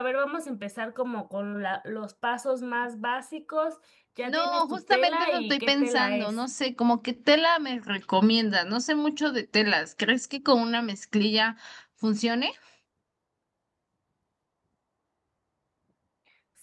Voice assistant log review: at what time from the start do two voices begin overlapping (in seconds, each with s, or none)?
4.2 s